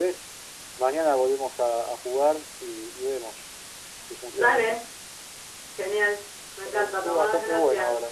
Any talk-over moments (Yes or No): Yes